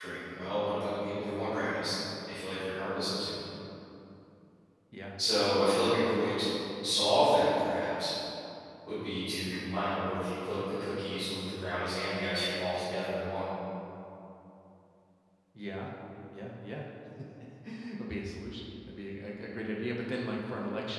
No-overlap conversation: Yes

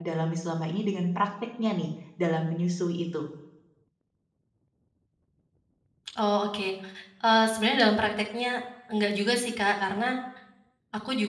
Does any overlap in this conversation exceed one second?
No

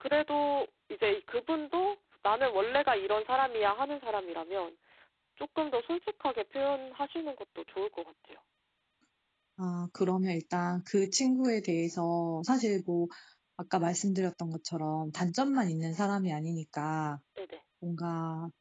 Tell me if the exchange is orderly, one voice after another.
Yes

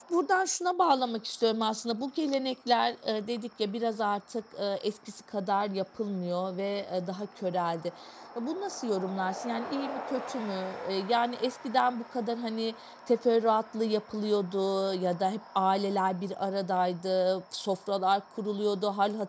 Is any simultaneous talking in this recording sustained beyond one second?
No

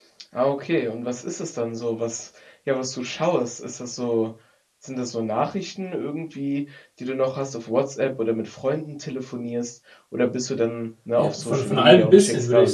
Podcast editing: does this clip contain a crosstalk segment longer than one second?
Yes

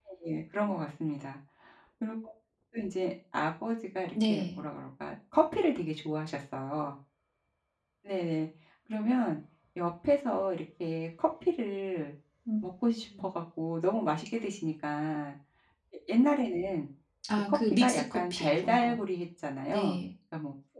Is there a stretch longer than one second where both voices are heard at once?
Yes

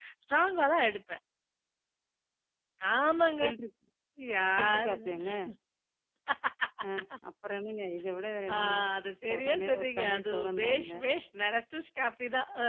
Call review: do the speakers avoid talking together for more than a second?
No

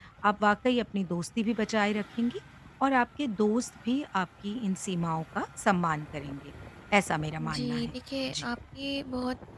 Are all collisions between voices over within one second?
Yes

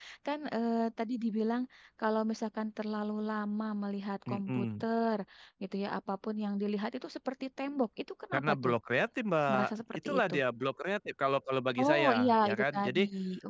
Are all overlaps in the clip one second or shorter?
No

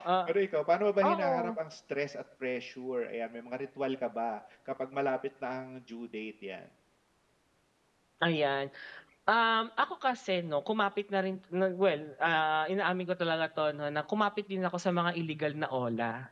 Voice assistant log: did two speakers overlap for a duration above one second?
No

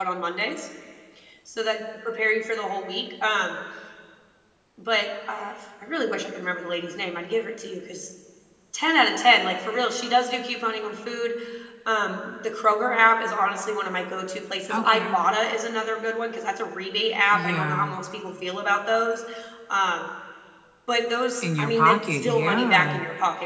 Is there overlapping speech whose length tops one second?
Yes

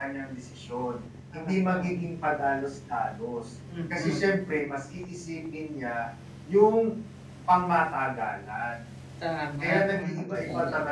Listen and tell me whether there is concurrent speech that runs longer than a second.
Yes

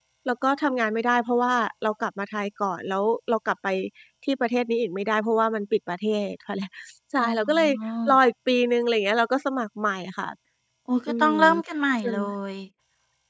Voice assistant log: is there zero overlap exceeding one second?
Yes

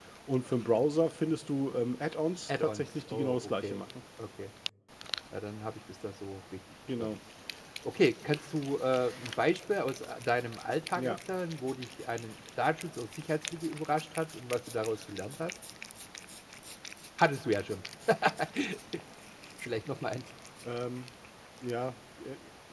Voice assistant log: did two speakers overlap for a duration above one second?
Yes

